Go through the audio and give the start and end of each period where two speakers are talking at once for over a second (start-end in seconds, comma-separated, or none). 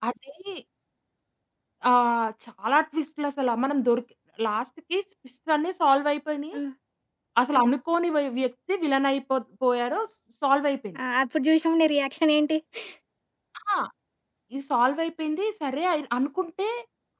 none